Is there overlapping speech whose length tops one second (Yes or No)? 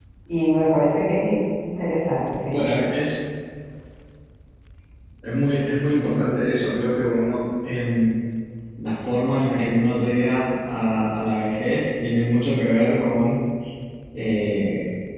No